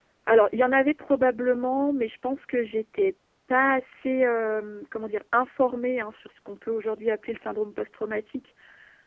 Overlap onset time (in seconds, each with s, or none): none